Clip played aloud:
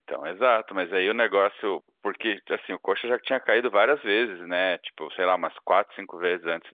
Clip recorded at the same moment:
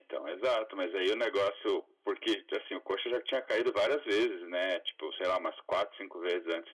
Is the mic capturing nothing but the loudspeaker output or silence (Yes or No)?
Yes